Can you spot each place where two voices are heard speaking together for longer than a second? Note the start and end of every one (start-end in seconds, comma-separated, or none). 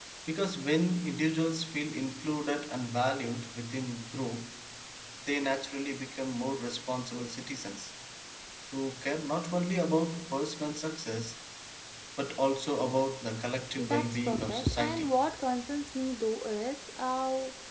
13.8-15.1